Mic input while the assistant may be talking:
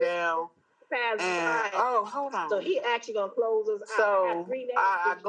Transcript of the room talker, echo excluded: none

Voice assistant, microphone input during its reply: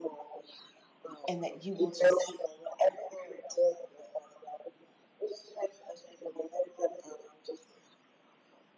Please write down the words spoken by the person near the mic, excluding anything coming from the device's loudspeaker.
and that you will just

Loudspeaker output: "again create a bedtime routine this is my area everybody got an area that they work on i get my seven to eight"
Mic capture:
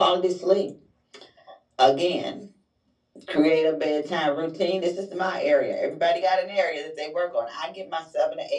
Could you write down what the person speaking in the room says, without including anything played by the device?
none

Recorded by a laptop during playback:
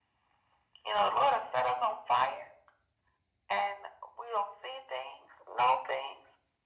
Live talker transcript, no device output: none

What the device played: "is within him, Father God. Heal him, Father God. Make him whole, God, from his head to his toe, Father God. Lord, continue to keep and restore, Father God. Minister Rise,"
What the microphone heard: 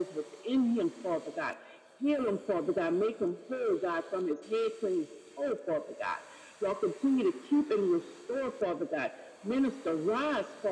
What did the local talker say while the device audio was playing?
none

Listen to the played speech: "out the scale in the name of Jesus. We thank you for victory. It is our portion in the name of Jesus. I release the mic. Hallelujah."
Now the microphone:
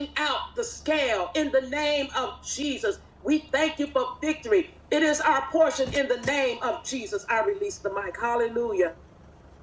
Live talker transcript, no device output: none

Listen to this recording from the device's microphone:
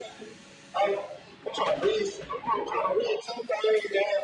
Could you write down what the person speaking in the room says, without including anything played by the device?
none

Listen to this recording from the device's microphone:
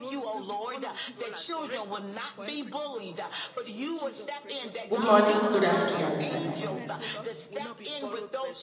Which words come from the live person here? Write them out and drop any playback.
Good morning. Good afternoon. Is my mic.

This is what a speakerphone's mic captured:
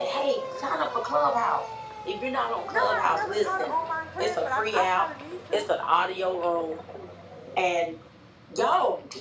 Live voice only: No, I've never taught an online class, but I, I probably need to.

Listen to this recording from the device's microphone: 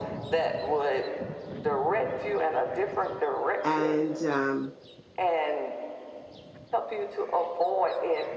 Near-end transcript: And, um,

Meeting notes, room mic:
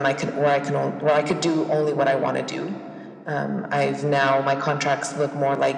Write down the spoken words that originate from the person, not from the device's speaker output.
none

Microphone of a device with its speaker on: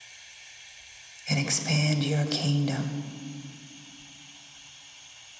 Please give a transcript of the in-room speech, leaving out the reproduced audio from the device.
and expand your kingdom.

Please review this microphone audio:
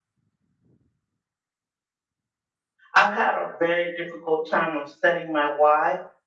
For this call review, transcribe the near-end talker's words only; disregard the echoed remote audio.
I've had a very difficult time of setting my why

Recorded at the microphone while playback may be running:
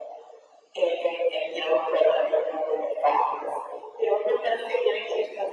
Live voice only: none

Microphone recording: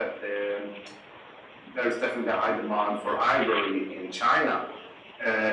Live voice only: none

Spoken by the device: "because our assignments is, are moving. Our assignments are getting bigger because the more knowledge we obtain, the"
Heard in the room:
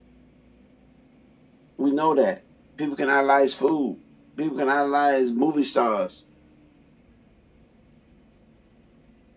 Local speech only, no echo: We know that. People can idolize food. People can idolize movie stars.

